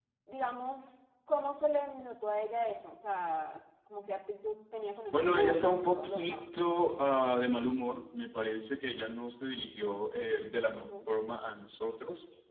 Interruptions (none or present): present